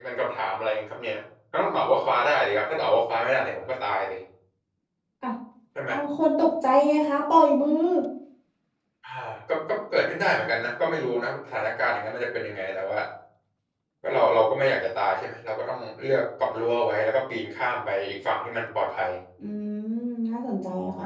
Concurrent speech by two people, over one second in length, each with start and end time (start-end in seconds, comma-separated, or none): none